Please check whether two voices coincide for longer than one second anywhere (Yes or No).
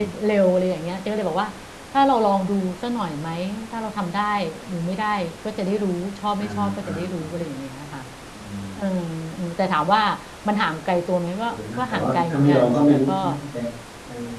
Yes